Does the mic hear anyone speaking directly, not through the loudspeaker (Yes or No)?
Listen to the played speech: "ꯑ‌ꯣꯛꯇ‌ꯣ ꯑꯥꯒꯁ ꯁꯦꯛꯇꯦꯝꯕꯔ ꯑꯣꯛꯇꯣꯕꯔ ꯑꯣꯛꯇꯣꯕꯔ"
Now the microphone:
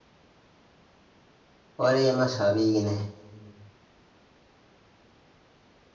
Yes